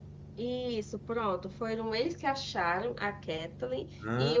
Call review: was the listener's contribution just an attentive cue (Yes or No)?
Yes